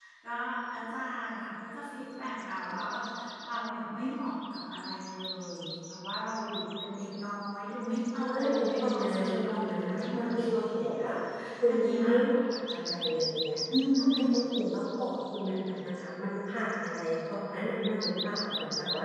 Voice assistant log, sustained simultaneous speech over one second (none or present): present